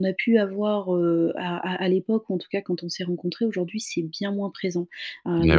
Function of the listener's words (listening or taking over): listening